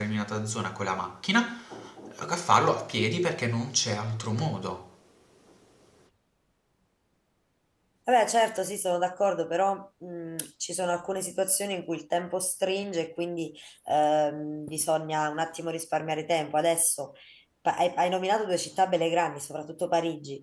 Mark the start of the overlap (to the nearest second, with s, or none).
none